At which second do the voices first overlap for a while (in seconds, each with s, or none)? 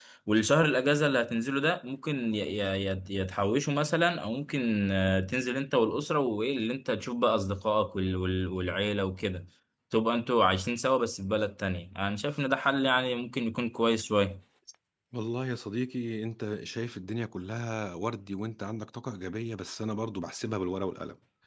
none